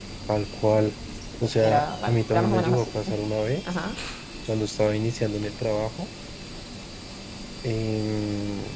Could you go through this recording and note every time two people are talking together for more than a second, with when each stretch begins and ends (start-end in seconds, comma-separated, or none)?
1.6-2.9